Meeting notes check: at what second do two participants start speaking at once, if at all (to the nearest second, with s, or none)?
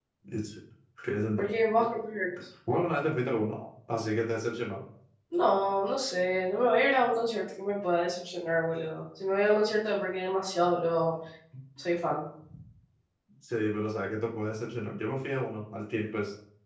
none